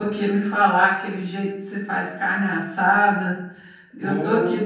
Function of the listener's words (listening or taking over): listening